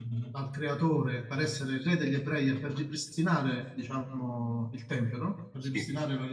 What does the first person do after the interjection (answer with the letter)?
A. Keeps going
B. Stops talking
A